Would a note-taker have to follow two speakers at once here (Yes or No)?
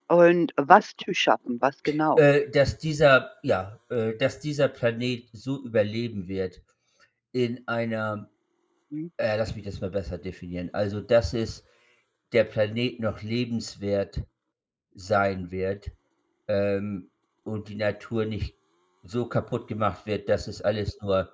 No